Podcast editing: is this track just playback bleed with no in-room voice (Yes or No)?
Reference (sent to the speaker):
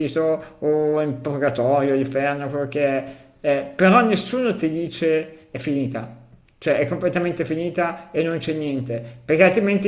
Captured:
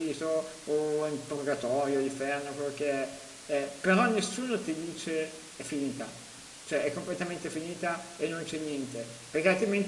Yes